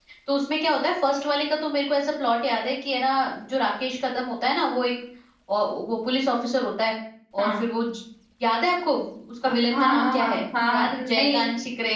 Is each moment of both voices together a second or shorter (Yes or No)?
No